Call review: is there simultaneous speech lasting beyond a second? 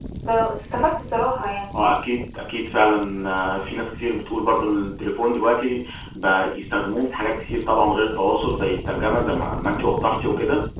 No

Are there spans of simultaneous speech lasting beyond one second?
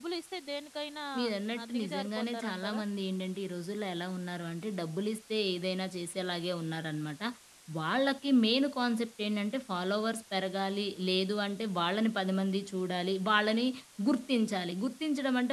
Yes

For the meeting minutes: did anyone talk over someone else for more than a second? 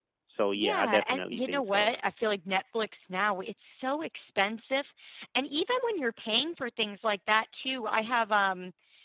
Yes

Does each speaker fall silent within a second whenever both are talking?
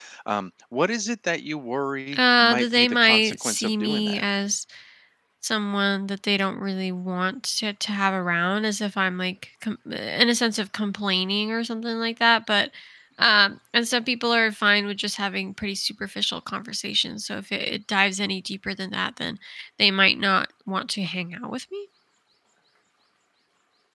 No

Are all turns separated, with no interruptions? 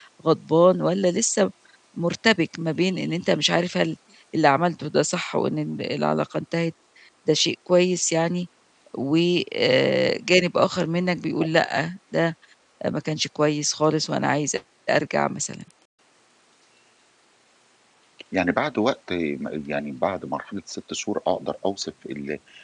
Yes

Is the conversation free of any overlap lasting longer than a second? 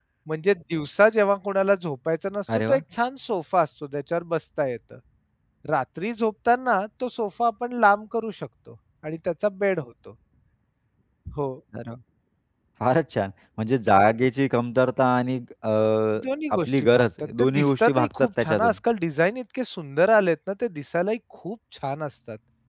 No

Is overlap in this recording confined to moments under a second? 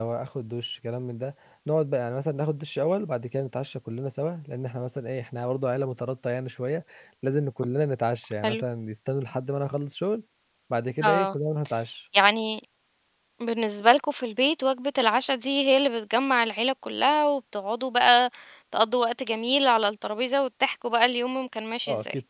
Yes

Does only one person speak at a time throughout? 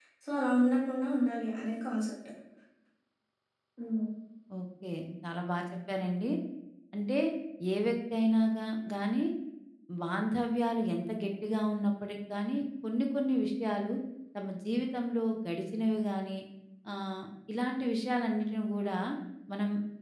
Yes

